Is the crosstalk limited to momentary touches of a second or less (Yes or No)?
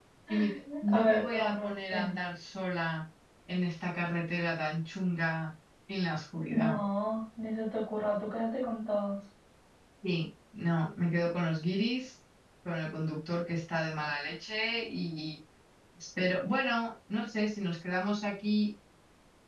No